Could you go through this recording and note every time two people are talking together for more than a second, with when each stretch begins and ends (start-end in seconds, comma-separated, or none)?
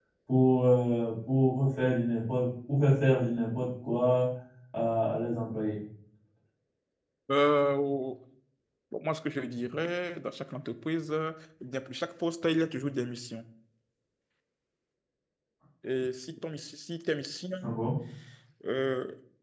none